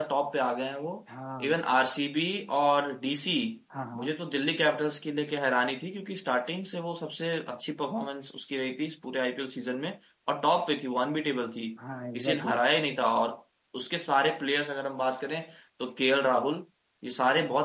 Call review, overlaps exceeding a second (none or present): none